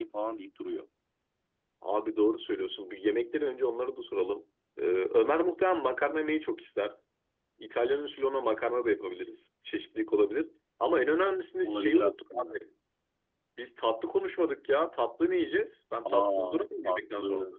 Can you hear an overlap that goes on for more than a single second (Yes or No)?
Yes